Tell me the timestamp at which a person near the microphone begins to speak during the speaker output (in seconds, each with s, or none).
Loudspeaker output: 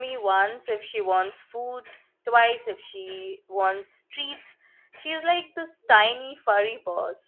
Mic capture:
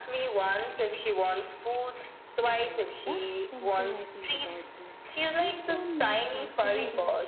2.4 s